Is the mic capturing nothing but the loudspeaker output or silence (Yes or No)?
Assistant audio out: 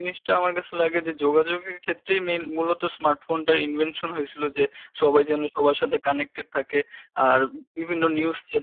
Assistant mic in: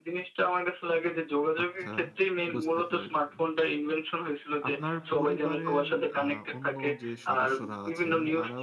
No